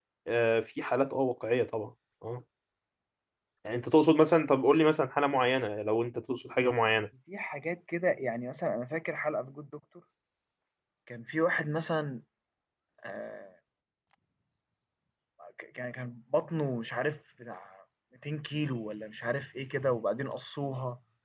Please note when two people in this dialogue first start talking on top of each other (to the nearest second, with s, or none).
none